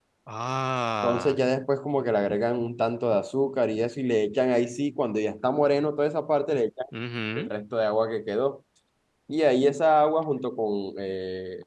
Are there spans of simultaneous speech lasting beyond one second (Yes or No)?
No